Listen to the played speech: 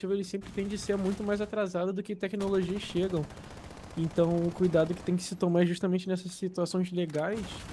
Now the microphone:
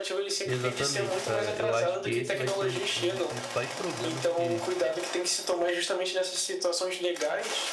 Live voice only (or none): Exatamente, cara. Eu acho que esse vai ser o- um dos principais problemas que